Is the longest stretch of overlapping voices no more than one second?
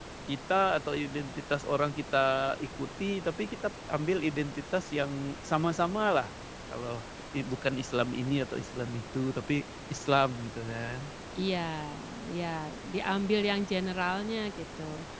Yes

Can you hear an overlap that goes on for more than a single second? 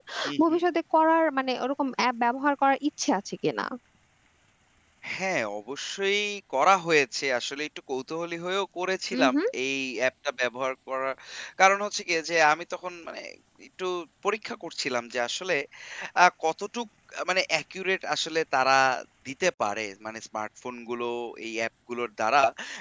No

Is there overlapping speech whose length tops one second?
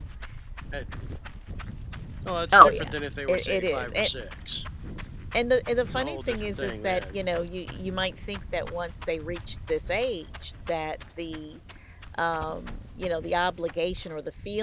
Yes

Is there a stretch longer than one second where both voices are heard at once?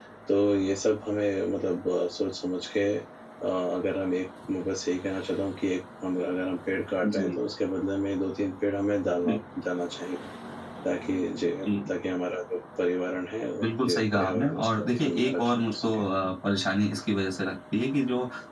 Yes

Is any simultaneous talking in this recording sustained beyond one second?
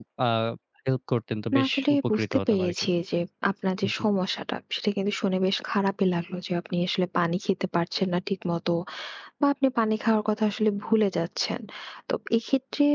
Yes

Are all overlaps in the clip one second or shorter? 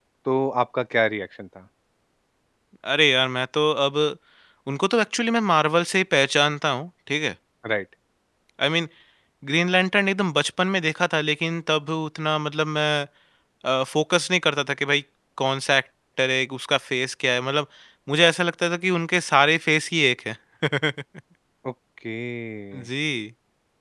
Yes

